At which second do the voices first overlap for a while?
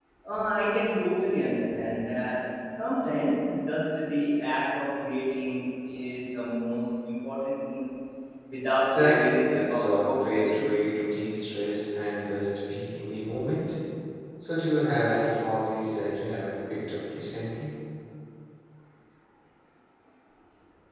8.9 s

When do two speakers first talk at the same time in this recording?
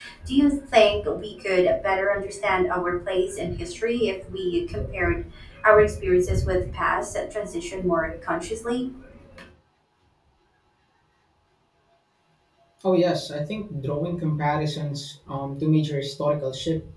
none

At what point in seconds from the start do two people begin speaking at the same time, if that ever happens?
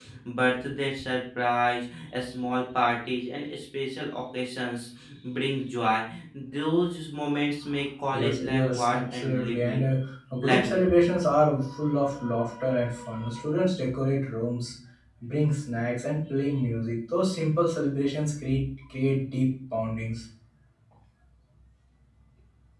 8.1 s

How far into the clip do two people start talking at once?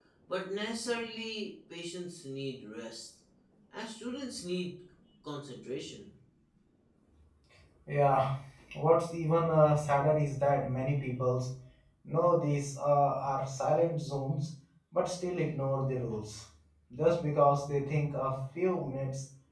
none

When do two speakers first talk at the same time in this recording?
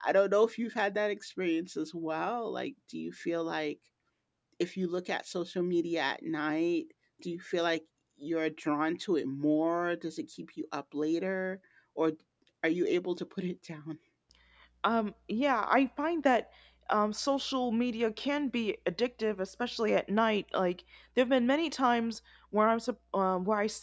none

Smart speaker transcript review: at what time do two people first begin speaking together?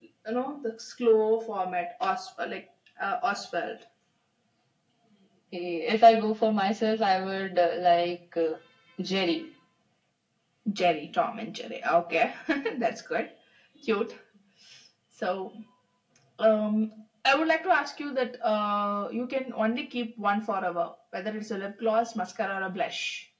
none

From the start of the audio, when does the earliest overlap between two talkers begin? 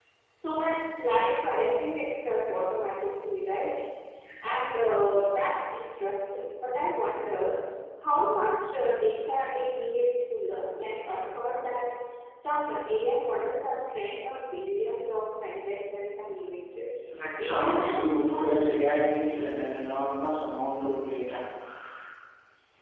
17.4 s

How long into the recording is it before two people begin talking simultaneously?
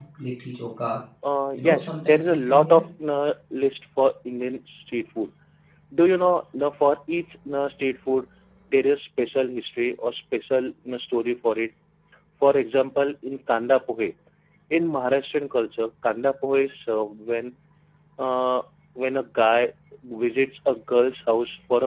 1.6 s

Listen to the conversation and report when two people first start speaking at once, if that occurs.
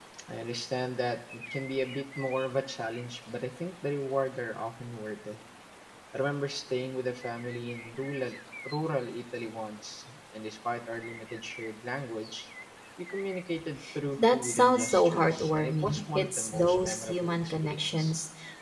14.3 s

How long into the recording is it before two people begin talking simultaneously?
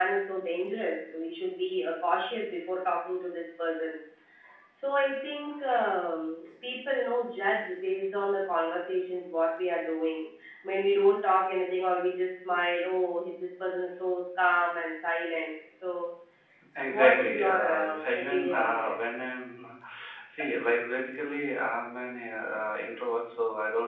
16.8 s

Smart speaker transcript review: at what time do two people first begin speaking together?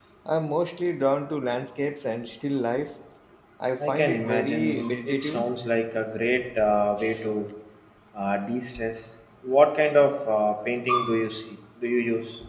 3.9 s

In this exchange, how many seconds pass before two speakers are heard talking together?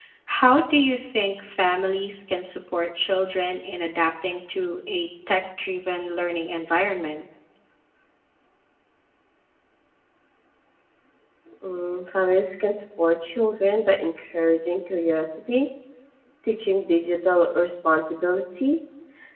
none

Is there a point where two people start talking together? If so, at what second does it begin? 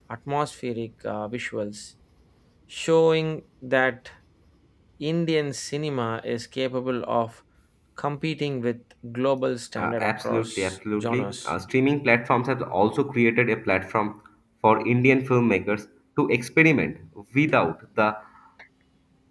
9.8 s

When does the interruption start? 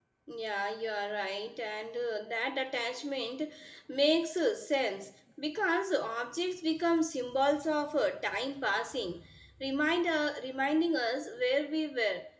none

